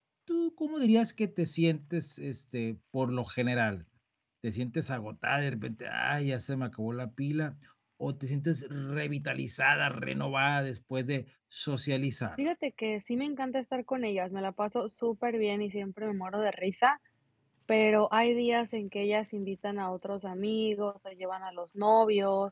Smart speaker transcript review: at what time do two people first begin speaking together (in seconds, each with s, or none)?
none